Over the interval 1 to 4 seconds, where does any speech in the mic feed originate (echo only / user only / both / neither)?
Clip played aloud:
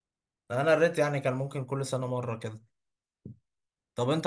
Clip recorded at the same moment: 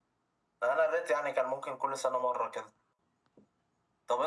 echo only